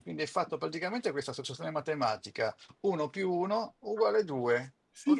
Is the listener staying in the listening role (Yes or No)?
No